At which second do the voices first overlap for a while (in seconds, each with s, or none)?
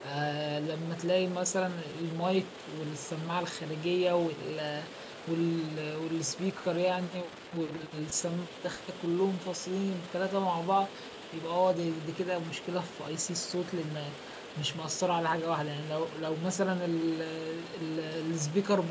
none